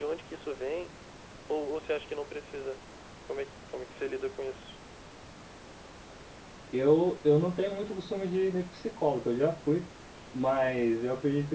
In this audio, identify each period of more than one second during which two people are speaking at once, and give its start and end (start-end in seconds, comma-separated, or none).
none